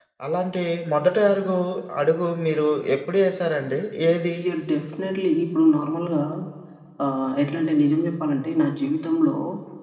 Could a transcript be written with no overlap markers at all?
Yes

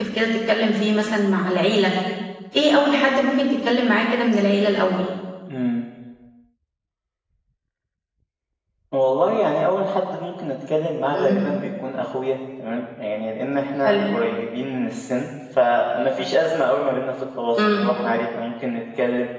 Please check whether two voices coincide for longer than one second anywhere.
No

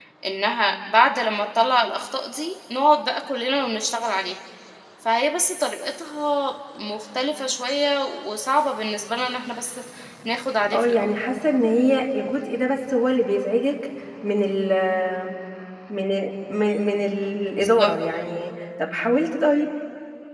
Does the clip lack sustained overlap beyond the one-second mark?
Yes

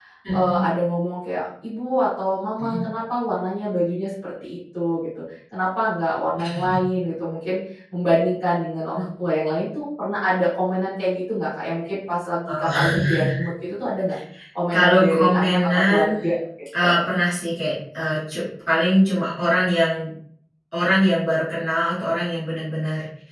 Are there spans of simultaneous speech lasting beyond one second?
Yes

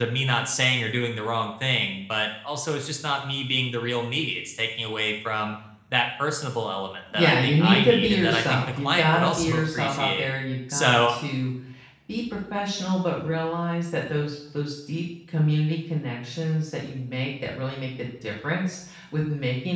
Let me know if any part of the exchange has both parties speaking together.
Yes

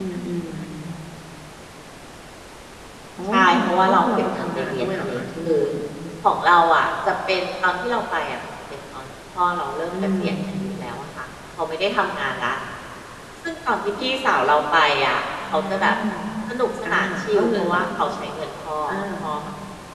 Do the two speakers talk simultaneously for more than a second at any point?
Yes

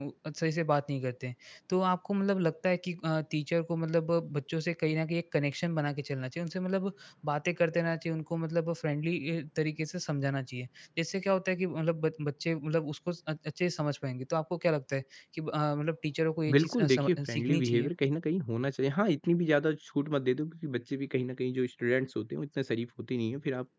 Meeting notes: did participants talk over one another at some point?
Yes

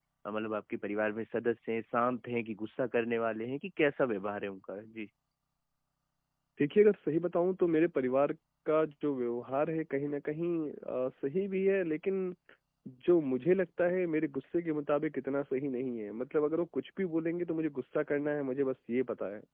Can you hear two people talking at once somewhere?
No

